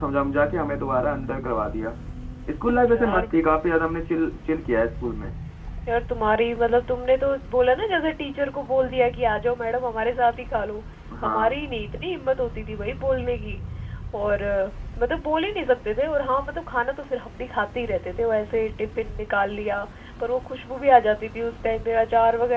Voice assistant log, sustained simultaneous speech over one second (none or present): none